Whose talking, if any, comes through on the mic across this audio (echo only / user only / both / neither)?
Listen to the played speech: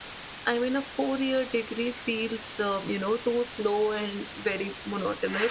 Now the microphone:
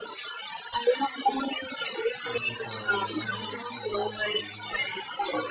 both